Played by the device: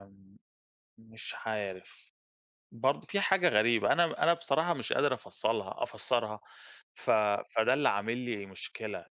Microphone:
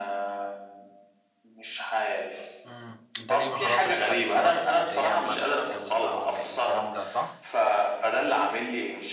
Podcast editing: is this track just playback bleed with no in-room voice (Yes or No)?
No